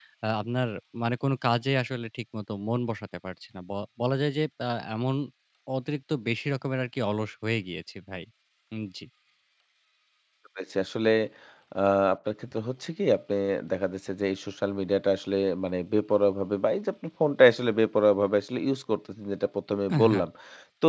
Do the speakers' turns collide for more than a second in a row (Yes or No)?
No